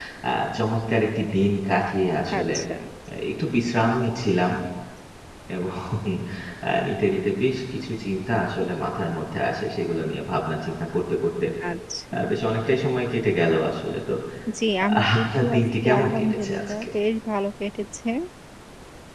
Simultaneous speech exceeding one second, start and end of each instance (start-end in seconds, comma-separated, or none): 15.0-16.9